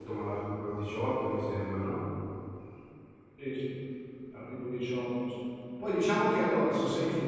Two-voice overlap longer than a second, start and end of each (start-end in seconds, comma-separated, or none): none